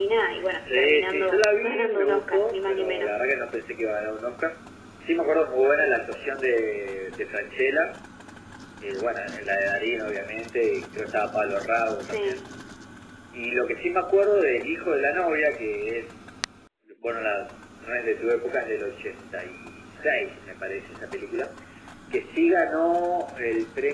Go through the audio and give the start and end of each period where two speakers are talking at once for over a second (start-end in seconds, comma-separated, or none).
0.6-3.2